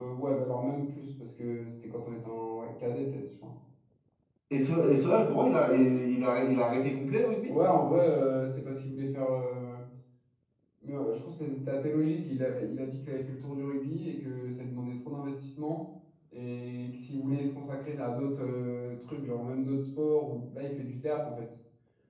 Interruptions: none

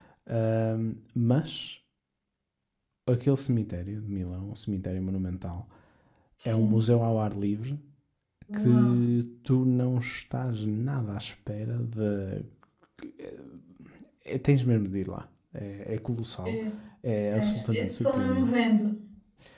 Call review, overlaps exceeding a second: present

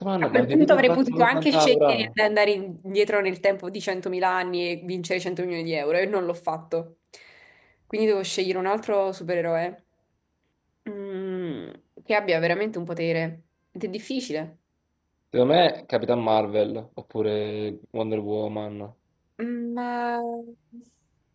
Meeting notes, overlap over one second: present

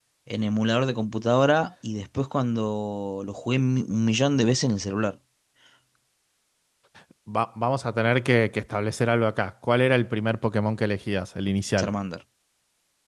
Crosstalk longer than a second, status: none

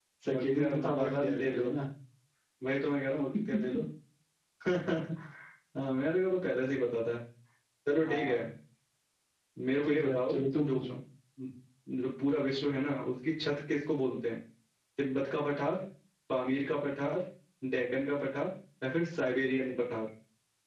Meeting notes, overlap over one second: present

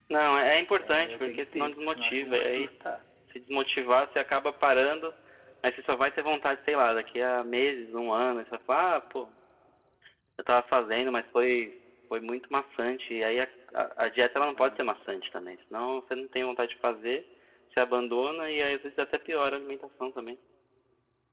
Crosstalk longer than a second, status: present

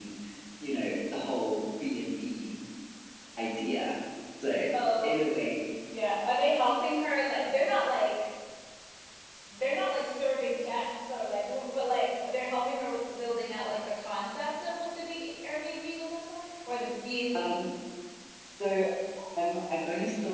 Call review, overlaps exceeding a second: none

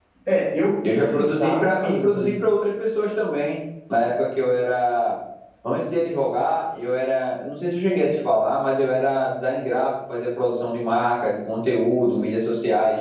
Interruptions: present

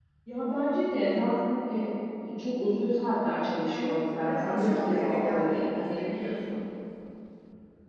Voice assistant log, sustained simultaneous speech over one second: present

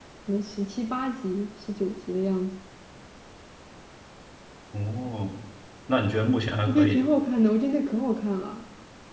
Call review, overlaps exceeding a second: none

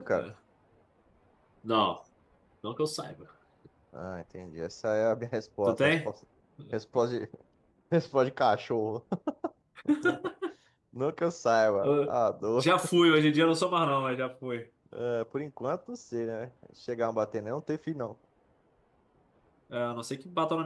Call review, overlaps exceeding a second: none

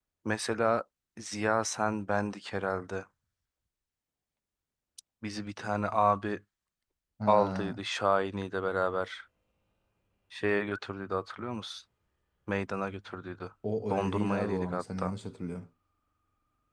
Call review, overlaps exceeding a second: present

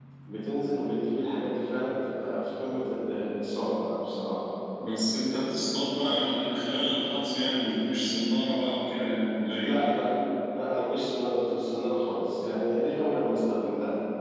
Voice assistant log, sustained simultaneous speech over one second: none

